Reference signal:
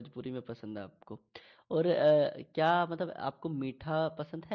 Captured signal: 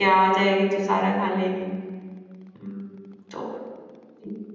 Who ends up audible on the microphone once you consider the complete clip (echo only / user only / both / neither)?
user only